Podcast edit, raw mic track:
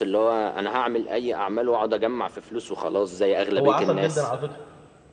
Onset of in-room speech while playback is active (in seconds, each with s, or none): 3.6 s